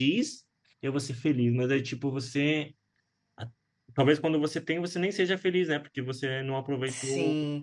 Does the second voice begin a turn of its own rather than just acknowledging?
Yes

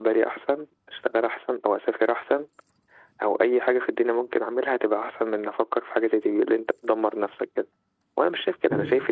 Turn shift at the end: No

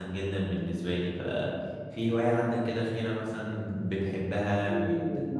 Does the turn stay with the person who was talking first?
No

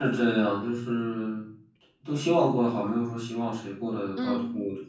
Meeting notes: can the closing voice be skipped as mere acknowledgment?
No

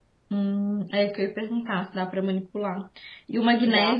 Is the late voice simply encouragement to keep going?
Yes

